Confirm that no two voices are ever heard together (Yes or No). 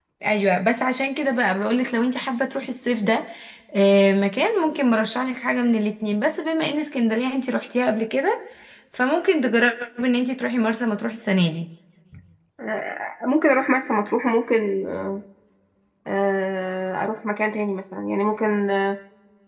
Yes